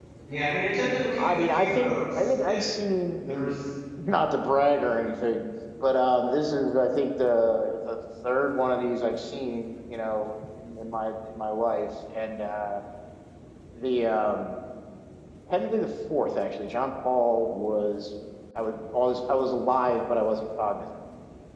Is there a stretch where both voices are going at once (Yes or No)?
Yes